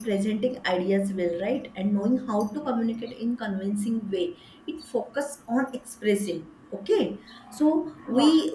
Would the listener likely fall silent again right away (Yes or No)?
Yes